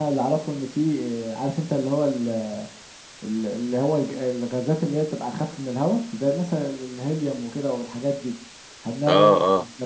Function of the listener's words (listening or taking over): listening